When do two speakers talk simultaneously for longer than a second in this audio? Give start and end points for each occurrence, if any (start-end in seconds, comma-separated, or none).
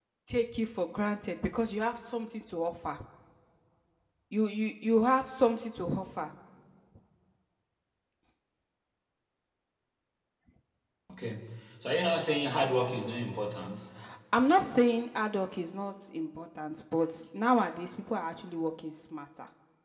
none